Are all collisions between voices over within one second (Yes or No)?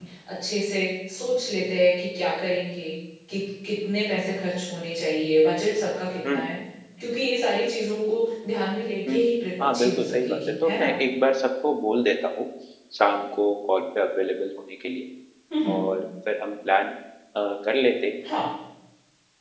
No